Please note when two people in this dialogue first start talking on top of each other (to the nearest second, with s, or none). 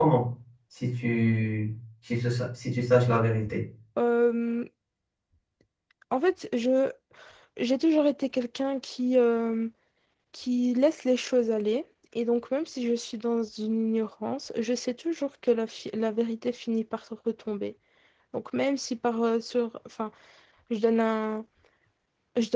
none